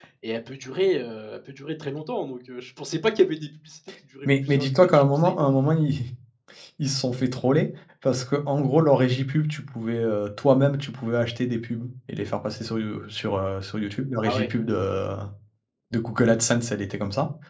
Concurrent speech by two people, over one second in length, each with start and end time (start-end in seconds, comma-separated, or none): 4.2-5.5